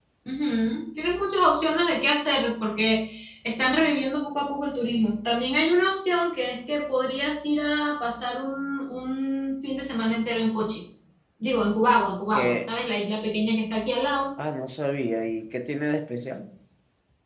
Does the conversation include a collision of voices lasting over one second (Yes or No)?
No